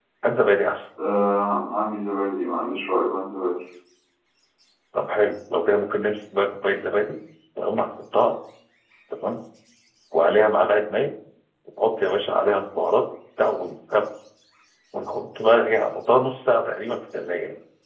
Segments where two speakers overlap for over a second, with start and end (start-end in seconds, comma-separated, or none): none